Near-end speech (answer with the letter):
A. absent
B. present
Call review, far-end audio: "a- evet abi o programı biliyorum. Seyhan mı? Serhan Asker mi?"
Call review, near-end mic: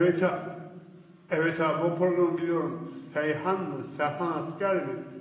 A